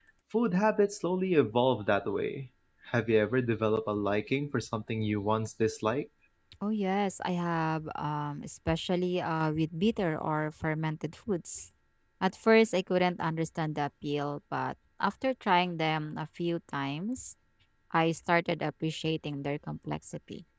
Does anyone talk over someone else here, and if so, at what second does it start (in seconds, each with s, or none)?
none